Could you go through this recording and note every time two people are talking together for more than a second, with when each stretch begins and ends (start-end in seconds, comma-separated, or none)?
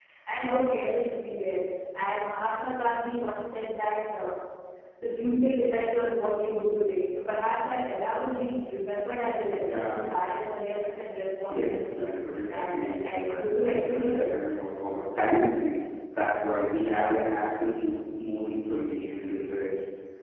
12.5-14.3